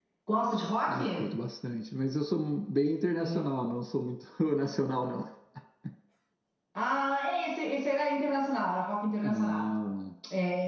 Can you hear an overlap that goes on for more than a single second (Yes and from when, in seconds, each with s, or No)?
No